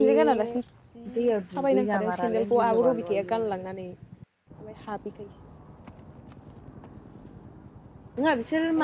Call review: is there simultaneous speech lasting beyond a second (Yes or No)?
Yes